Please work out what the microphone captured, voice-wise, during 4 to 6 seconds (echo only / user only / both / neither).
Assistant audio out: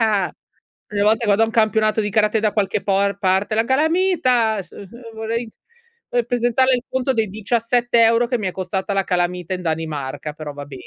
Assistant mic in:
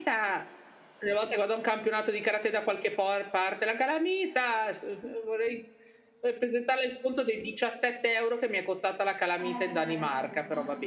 echo only